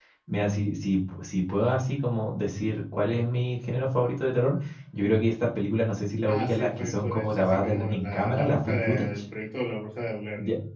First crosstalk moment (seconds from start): 6 s

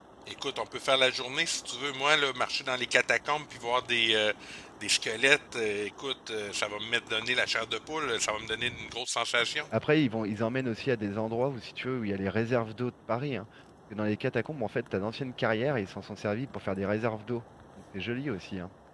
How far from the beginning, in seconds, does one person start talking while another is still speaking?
none

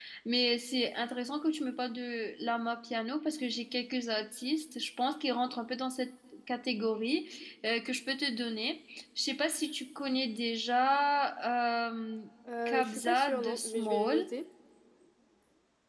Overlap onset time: 13 s

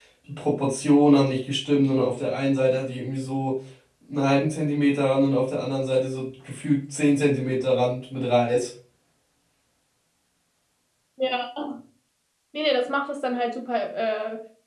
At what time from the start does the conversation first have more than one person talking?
none

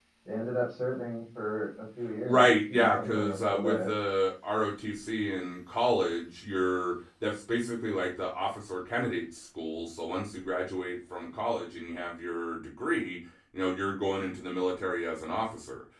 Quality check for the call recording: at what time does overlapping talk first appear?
2 s

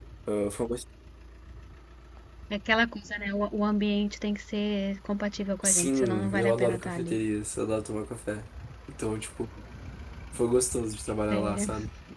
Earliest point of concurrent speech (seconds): 6 s

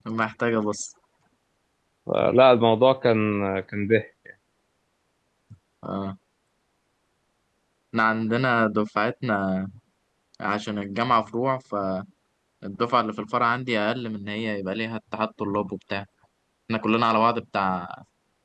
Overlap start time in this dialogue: none

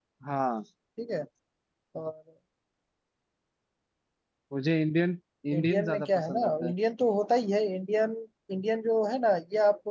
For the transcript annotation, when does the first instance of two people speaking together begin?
6 s

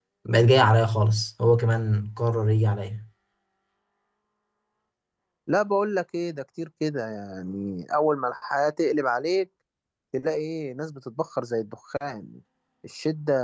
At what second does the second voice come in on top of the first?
none

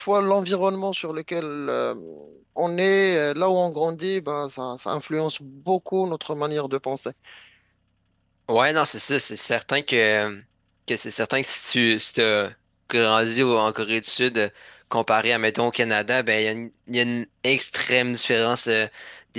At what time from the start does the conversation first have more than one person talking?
none

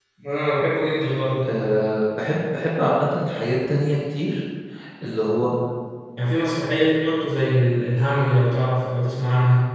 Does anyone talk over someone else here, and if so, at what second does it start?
none

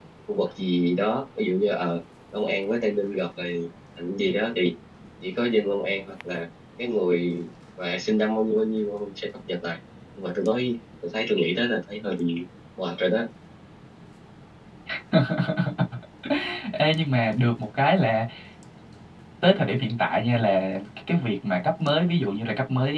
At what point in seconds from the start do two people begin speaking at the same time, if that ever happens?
none

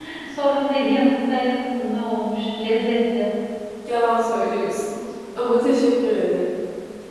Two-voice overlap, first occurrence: none

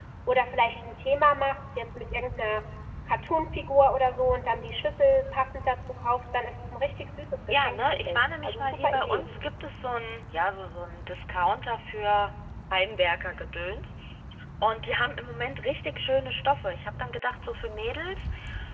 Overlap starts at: 7 s

